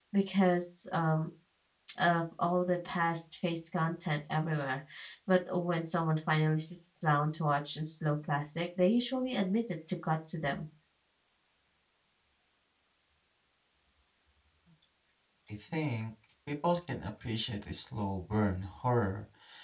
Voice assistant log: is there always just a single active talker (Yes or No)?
Yes